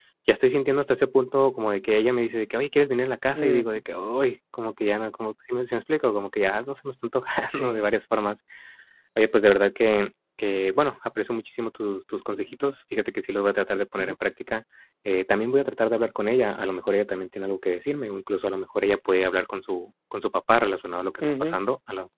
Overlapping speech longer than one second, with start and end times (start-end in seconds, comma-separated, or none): none